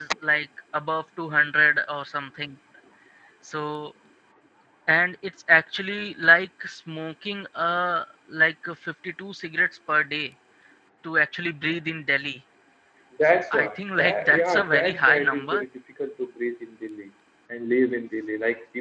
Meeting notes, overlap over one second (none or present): present